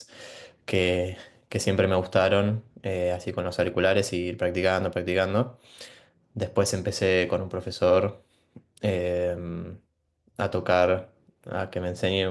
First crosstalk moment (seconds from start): none

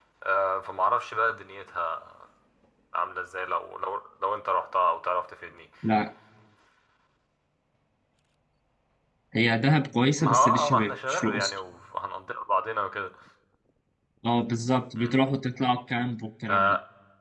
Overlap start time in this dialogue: 10.2 s

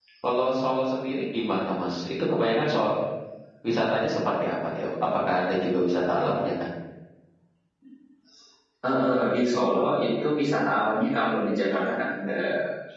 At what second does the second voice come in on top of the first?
none

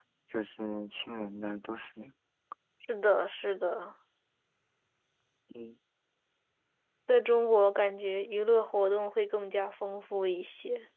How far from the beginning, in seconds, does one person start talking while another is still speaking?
none

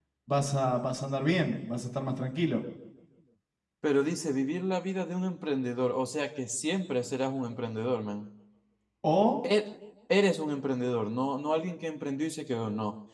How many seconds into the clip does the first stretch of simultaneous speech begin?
none

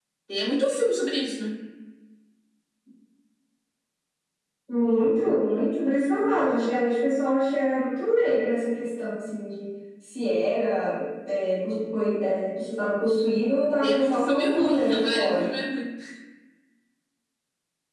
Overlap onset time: 13.8 s

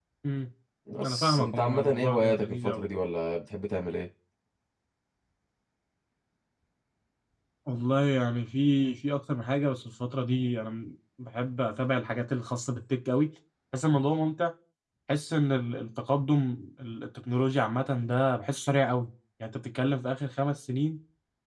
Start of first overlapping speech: 1.0 s

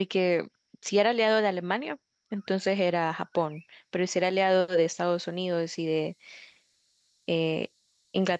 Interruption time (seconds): none

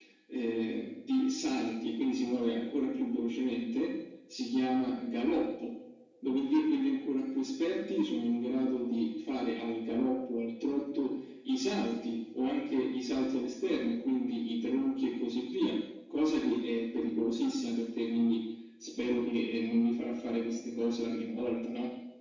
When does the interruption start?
none

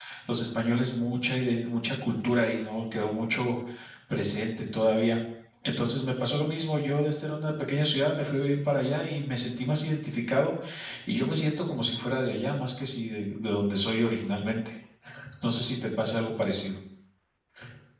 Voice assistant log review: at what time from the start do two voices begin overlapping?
none

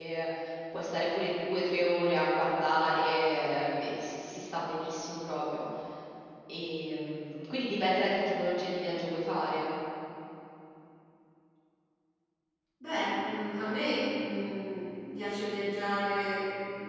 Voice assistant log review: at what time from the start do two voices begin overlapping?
none

